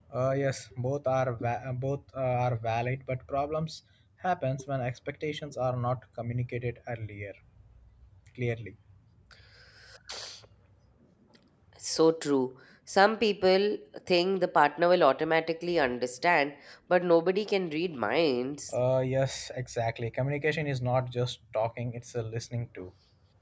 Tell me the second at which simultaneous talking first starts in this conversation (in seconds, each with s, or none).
none